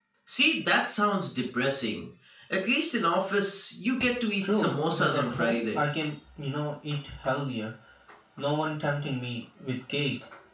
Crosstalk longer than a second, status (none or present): present